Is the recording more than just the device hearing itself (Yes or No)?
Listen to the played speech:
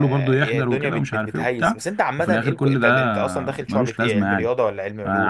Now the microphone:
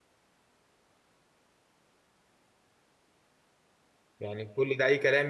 Yes